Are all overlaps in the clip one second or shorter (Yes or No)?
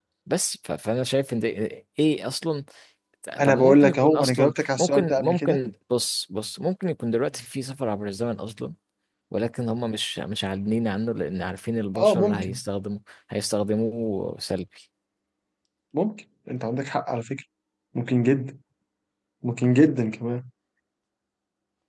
No